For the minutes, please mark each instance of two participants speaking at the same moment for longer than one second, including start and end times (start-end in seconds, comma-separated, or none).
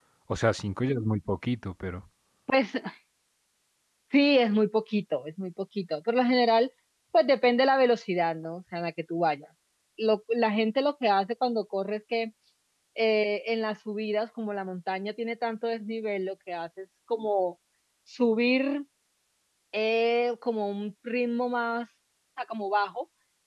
none